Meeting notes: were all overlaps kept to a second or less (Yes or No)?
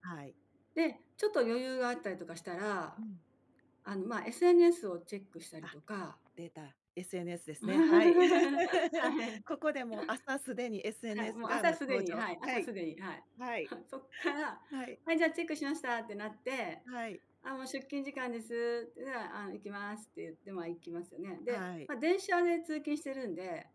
No